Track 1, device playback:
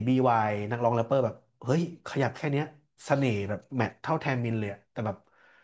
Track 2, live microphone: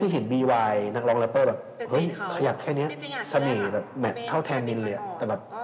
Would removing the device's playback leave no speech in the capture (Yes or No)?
No